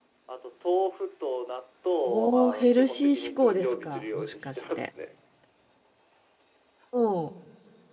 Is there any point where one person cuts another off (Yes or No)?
Yes